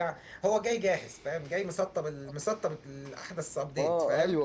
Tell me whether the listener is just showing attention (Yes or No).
No